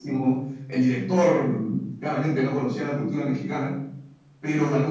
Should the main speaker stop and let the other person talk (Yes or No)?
No